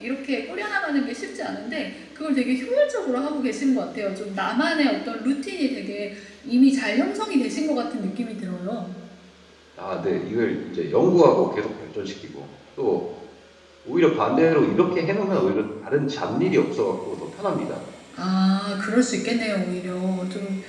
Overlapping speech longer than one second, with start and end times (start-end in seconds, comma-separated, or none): none